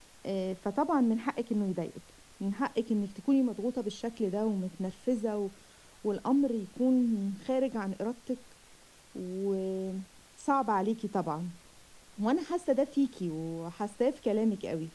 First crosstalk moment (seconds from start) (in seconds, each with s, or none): none